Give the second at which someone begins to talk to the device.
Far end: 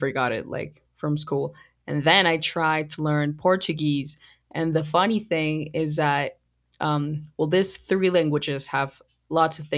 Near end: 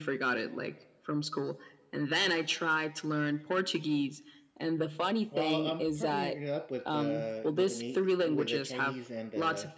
5.3 s

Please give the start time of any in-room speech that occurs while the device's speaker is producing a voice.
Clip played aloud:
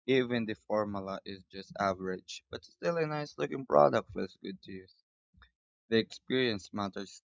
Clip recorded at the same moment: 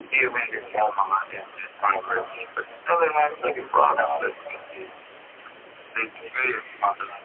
none

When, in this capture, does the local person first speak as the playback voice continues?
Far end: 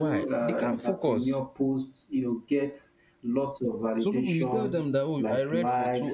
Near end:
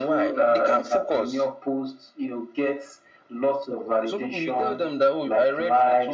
none

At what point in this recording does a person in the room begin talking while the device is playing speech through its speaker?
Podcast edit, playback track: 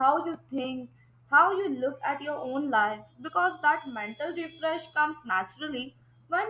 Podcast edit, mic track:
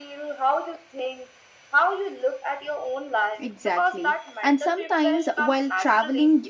3.4 s

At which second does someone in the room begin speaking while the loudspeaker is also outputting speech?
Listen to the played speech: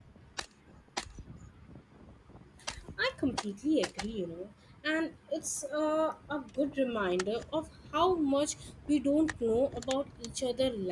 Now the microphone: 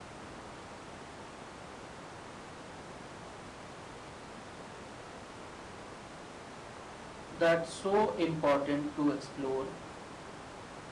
7.3 s

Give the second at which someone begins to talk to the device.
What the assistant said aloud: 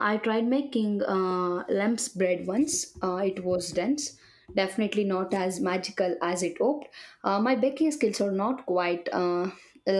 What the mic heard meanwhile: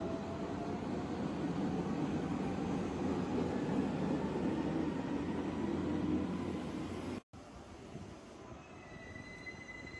none

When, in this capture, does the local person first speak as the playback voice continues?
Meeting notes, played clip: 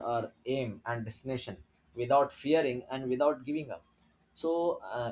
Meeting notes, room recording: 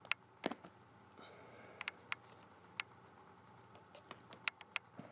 none

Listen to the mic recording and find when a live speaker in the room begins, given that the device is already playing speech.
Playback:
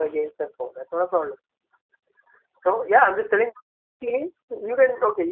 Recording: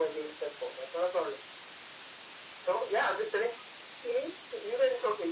none

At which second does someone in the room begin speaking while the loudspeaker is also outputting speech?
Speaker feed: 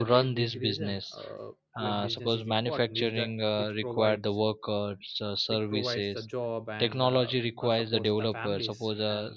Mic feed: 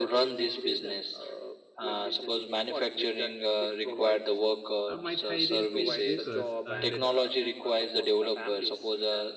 4.9 s

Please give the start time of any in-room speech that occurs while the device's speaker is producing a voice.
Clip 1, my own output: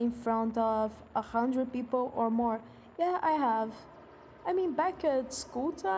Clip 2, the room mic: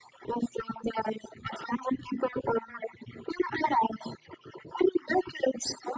none

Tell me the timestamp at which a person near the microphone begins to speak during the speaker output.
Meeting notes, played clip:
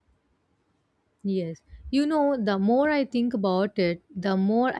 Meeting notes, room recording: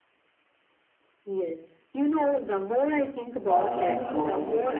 3.4 s

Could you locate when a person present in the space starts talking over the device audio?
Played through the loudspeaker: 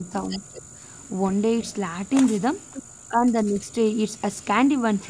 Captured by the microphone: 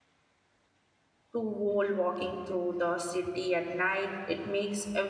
1.3 s

